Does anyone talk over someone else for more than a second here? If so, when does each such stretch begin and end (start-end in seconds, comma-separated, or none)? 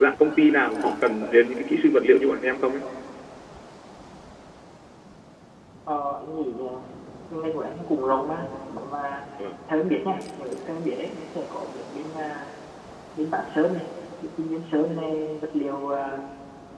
none